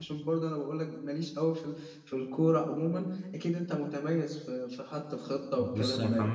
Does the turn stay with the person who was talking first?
No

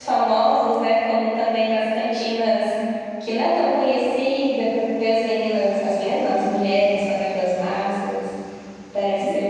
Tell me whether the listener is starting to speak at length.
Yes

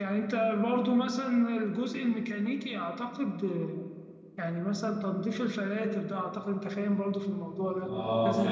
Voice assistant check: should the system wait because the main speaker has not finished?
No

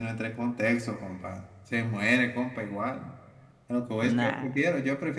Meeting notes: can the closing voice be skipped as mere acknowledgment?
Yes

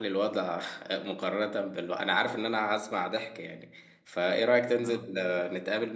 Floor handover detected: No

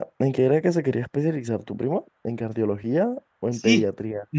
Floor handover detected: Yes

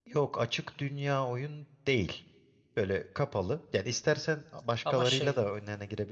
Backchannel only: Yes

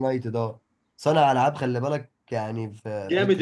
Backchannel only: No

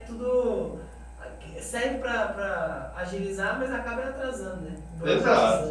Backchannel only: No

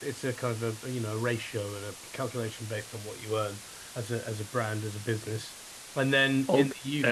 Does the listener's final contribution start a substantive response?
Yes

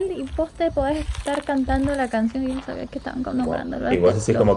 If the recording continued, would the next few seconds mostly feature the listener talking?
Yes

